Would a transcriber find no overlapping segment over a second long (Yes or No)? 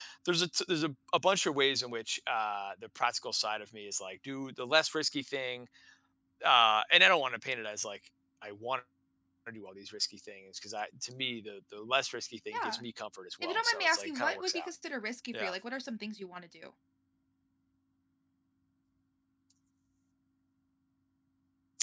No